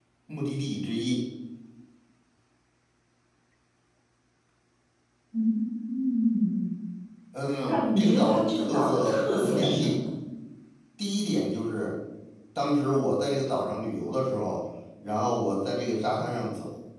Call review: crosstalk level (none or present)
present